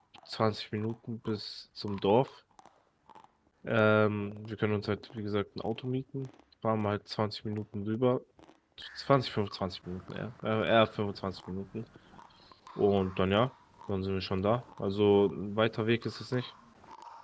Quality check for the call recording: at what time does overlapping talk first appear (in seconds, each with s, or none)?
none